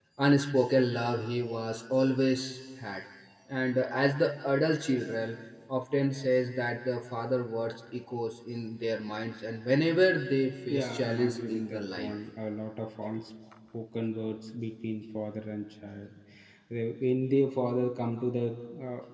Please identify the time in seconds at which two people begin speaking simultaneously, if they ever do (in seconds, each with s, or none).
10.7 s